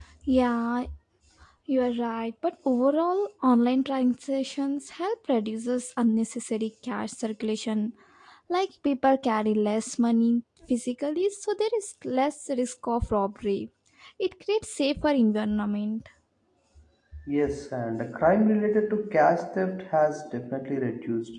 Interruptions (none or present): none